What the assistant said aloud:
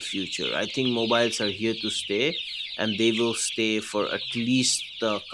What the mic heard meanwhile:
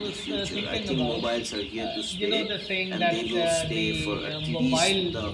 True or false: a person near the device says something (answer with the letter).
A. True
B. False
A